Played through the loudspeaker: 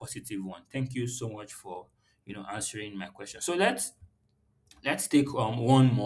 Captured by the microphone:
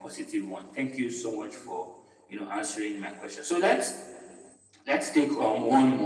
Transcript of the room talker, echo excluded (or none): none